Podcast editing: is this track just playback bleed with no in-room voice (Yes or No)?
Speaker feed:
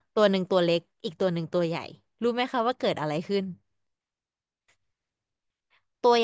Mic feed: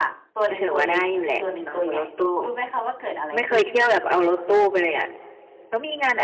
No